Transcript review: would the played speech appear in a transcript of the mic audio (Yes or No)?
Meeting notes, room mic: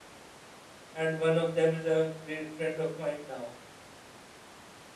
No